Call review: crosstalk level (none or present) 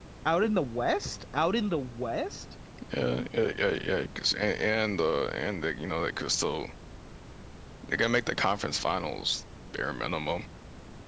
none